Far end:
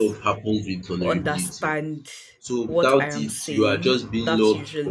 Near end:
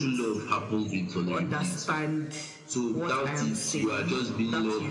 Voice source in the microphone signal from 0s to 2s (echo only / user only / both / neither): echo only